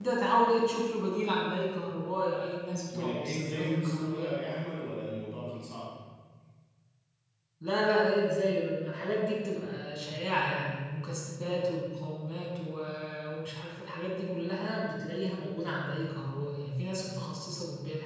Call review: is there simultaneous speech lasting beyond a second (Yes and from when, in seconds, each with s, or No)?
Yes, from 2.9 s